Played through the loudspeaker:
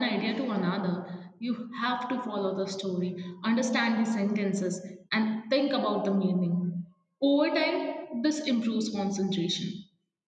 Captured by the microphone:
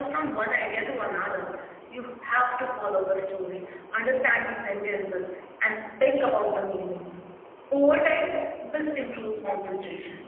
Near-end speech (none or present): none